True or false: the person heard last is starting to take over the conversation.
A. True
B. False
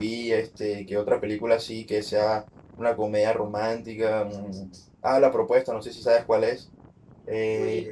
B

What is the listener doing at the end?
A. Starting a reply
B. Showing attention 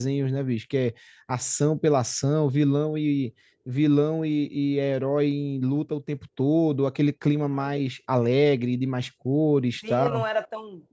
A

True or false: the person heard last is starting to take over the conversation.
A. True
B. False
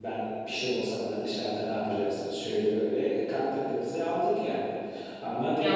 B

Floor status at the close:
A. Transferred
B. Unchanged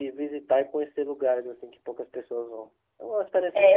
A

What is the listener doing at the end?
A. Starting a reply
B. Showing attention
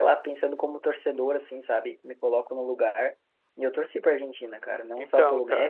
B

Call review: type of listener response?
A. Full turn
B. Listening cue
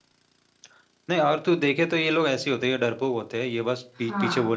B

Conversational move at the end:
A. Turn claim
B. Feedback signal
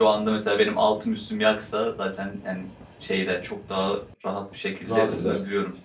A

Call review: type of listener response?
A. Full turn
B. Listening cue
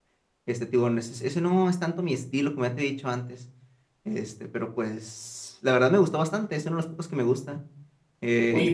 A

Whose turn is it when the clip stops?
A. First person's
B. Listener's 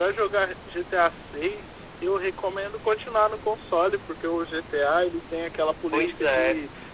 A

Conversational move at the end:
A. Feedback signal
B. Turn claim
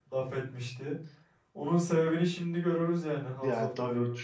B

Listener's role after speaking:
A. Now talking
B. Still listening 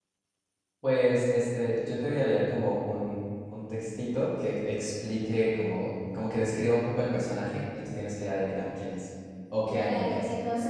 A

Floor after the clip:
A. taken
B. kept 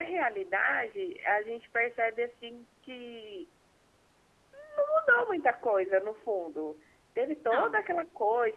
B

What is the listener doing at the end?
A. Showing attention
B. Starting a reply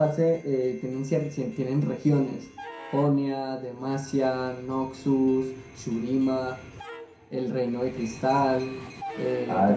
B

